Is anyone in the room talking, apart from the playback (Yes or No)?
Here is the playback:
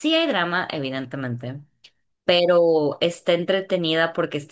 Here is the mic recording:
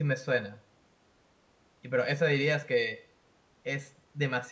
Yes